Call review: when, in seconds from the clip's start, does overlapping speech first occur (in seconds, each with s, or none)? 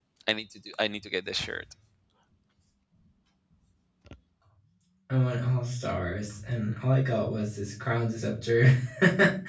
none